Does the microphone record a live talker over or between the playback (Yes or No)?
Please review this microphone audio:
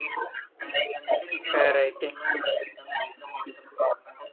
Yes